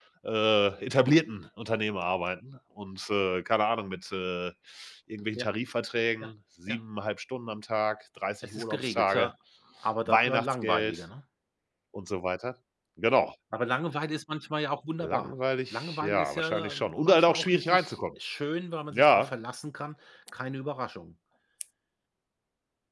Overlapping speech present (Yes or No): Yes